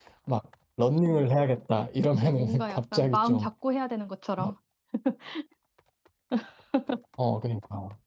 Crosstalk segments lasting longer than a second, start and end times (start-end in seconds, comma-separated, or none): 2.0-3.5